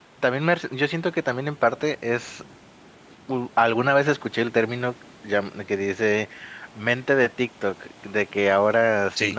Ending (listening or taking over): listening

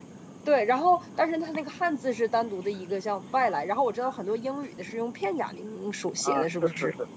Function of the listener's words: taking over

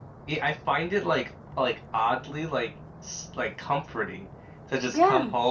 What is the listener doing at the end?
listening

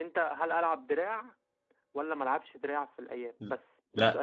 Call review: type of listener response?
taking over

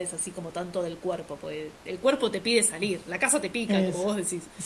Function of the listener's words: taking over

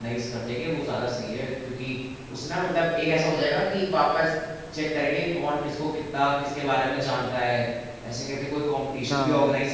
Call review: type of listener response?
listening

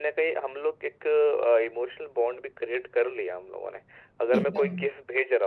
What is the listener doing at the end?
listening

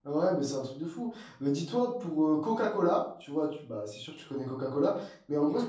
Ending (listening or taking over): listening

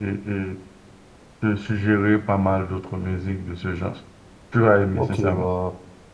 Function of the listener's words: taking over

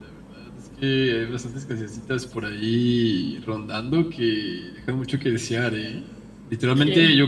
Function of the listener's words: listening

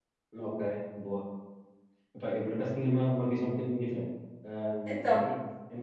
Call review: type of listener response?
listening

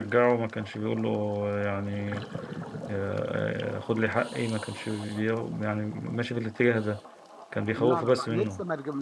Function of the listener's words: taking over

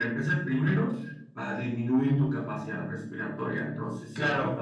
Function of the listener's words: taking over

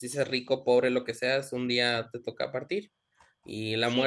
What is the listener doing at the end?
taking over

